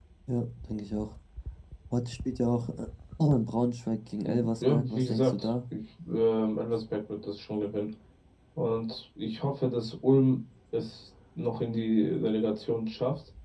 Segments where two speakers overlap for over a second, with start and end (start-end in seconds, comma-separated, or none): 4.2-5.5